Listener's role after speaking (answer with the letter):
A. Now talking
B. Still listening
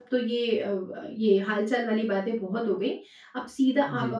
B